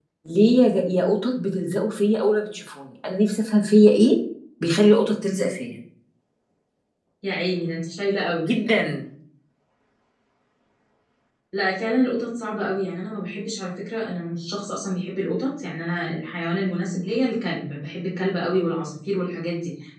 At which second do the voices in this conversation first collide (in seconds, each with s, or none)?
none